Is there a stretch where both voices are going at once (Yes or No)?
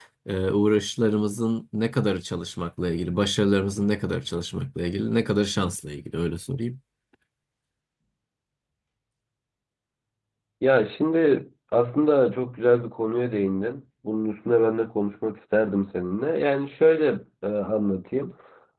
No